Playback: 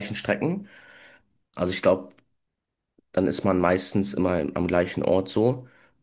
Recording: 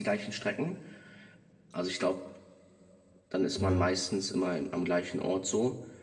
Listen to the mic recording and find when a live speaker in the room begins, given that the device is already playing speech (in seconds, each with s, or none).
3.5 s